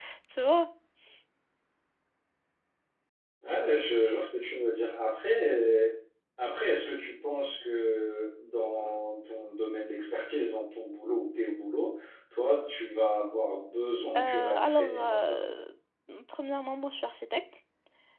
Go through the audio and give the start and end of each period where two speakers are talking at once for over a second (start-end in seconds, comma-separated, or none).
14.2-15.4